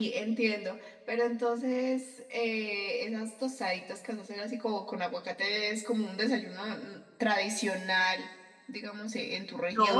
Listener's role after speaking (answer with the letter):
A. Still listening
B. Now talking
B